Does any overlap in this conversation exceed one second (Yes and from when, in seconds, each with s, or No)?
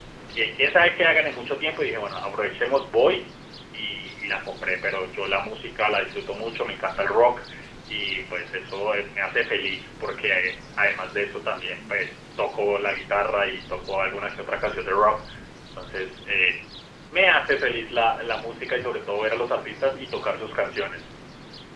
No